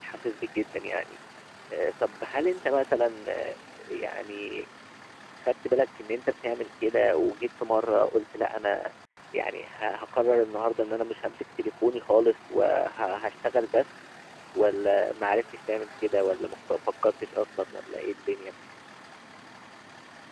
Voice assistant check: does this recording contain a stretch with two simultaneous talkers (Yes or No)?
No